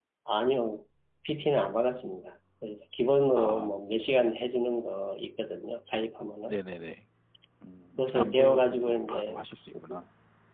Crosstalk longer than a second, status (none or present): present